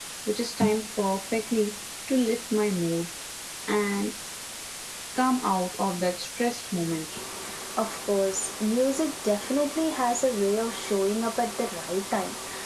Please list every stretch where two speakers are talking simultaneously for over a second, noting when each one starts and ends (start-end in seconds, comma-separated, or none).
none